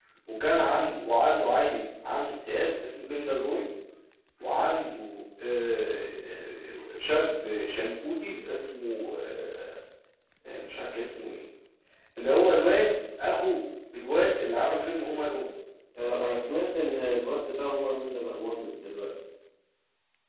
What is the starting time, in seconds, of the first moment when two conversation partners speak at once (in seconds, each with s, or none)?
none